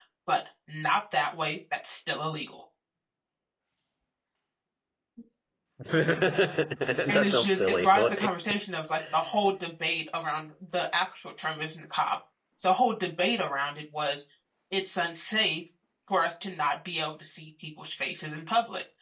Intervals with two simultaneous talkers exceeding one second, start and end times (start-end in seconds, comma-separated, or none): 7.1-8.3